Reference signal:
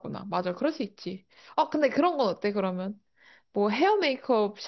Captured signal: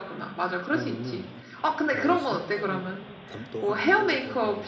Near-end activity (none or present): present